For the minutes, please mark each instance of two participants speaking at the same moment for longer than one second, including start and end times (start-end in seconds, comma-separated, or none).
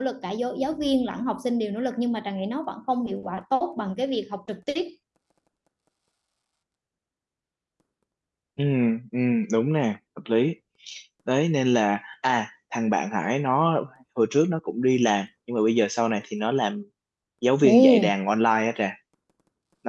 none